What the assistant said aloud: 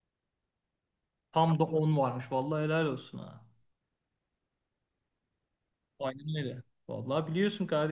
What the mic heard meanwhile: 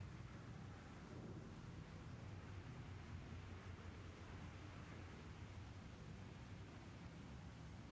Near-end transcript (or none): none